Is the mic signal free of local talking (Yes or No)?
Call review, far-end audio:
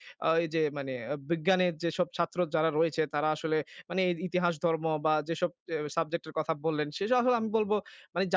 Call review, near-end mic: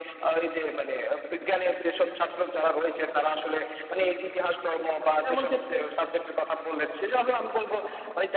No